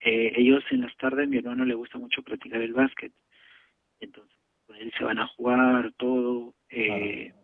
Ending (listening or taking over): listening